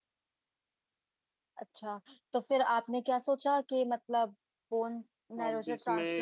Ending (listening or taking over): taking over